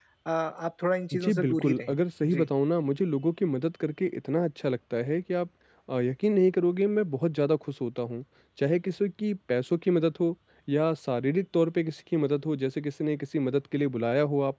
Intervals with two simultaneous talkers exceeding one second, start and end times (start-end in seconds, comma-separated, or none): 1.1-2.5